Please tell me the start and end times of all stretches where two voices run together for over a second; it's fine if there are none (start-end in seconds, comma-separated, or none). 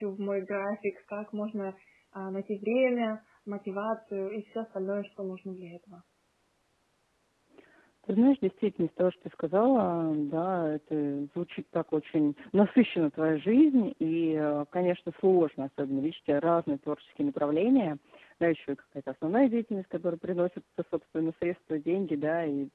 none